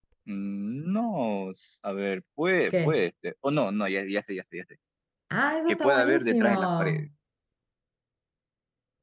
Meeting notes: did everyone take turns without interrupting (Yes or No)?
No